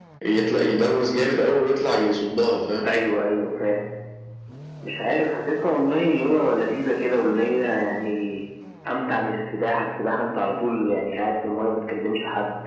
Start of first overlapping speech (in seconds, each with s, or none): none